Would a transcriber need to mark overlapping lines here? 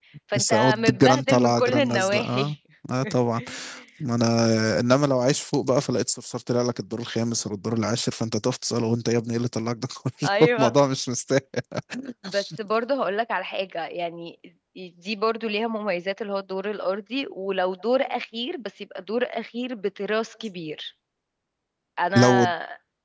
Yes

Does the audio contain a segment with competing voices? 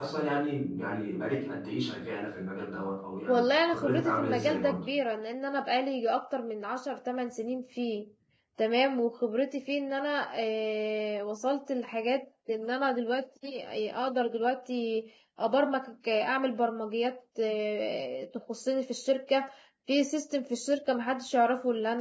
Yes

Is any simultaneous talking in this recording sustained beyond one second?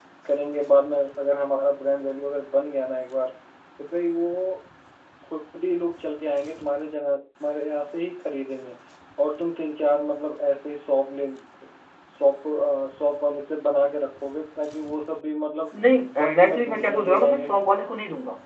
Yes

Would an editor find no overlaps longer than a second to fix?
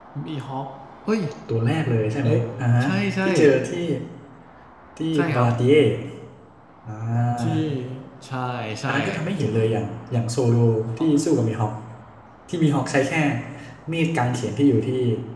Yes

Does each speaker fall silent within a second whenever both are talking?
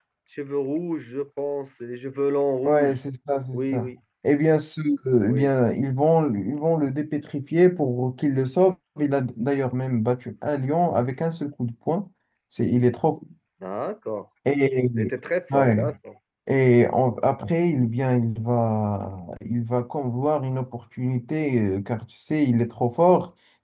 Yes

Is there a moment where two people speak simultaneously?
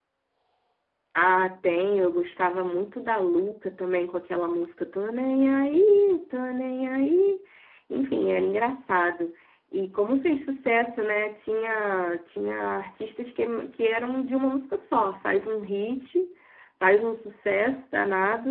No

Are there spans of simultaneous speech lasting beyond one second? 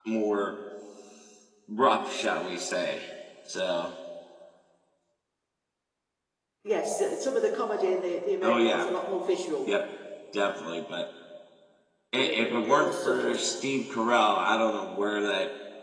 Yes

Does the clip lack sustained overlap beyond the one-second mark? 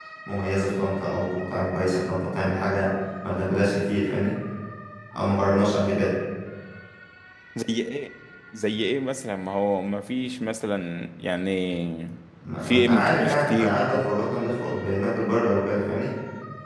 No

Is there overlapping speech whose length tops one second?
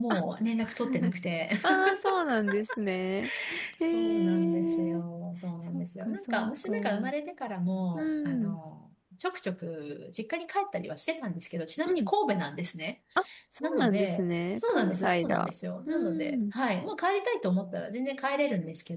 Yes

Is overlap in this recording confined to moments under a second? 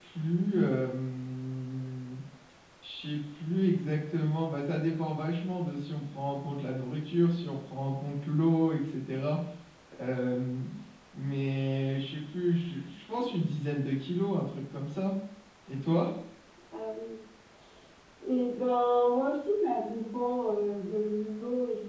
Yes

